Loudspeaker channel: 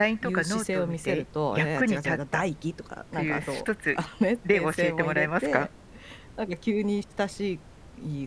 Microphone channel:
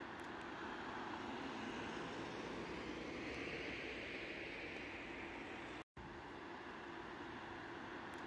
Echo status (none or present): none